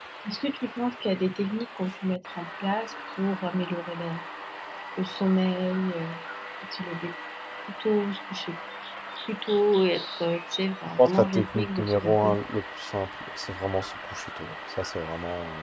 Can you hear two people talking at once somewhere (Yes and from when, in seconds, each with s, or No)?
Yes, from 11.0 s